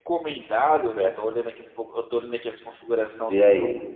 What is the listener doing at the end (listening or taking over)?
listening